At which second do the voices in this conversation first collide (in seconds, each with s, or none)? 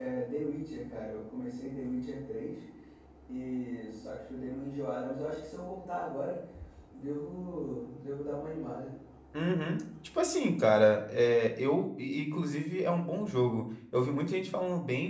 none